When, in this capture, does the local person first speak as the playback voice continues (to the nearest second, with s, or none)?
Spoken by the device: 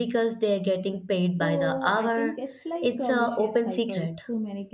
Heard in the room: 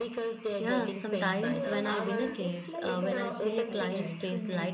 1 s